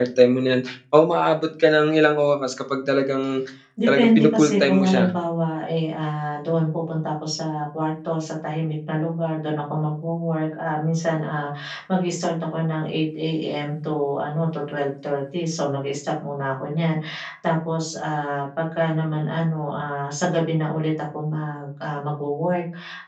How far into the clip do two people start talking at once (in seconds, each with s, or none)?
3.9 s